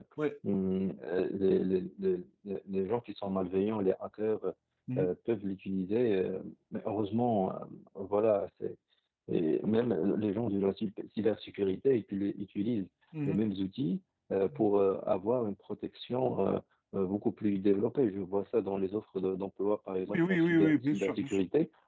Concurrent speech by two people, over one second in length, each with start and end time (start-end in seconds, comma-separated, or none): 20.1-21.4